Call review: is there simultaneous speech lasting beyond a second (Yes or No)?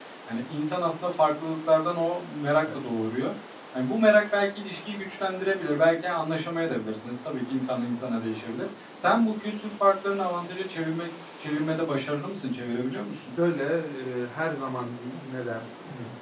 No